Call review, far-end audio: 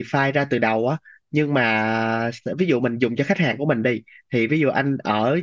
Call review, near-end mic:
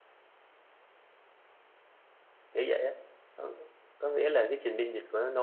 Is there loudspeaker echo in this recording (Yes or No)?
No